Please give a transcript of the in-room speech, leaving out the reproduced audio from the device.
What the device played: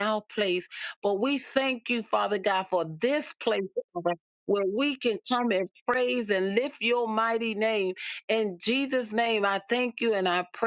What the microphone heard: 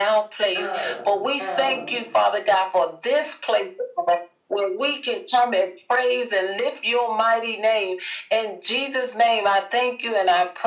uh, um,

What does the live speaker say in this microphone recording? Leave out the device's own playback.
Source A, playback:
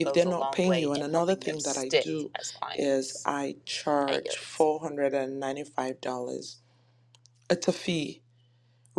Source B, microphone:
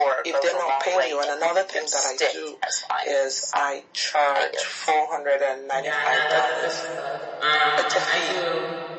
Yeah, no, that's good stuff. Um, and I do

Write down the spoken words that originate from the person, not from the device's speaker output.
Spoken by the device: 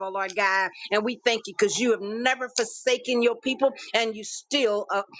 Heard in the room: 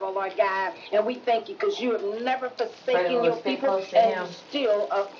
Pray that we will stay close to Him

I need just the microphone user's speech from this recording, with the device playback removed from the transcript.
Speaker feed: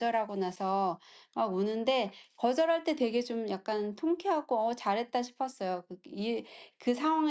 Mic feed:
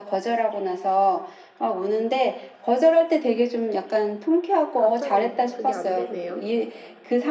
갑자기 그게 안 되네요.

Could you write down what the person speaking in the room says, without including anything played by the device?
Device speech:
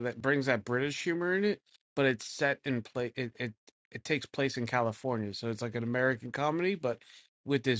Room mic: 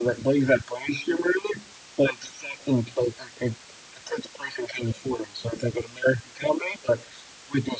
none

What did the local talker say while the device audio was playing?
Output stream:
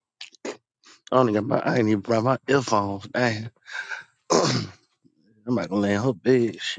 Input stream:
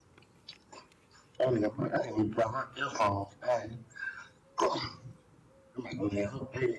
none

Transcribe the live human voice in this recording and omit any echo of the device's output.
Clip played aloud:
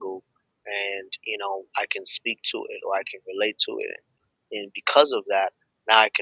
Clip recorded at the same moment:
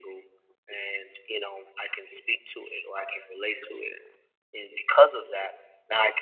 none

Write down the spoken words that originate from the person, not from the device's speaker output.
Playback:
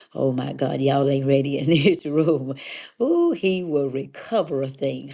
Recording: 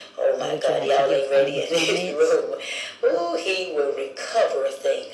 Or would you like to give final comments?

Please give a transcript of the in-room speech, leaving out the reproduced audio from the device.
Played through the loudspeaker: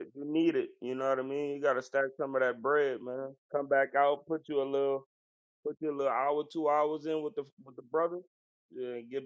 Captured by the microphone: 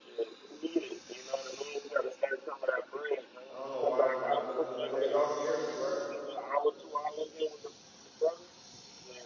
I don't know why it's not looking like that. Y'all can hear me, right?

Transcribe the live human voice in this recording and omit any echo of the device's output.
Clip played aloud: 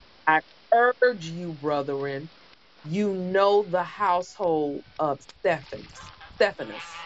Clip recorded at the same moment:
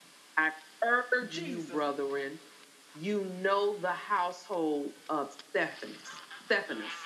Jesus.

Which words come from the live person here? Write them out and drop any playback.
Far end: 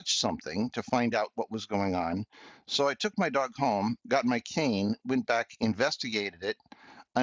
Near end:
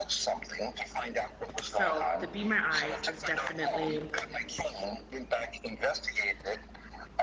So the Be My Eyes is definitely,

